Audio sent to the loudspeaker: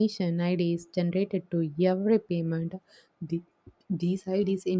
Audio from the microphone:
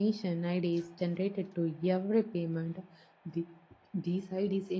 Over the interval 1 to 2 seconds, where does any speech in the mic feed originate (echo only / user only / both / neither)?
echo only